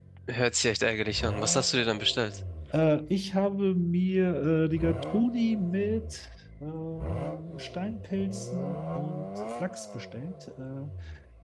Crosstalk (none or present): none